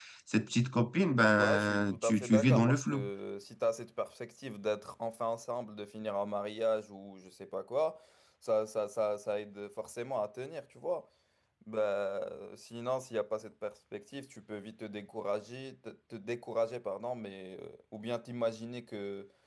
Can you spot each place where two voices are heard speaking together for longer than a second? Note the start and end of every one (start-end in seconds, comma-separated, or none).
1.4-3.1